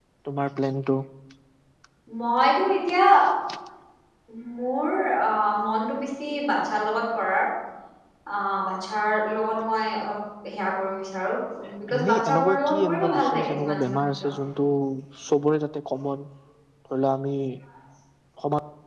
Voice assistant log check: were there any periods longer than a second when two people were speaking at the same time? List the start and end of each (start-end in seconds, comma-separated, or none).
12.0-14.2